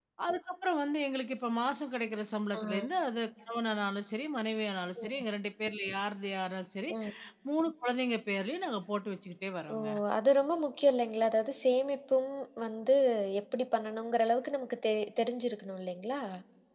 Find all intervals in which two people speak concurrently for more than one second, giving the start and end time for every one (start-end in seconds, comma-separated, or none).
none